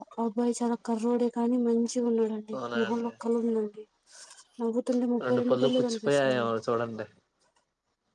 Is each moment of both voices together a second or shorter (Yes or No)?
No